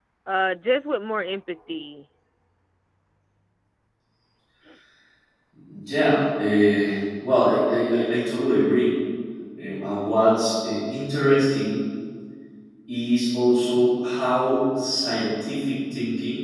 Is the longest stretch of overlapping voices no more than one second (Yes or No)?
Yes